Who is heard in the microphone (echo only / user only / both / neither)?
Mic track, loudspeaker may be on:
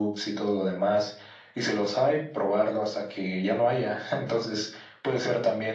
echo only